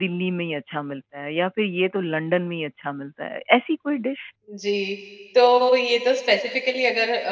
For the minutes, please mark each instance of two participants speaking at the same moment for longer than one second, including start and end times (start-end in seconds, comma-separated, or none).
none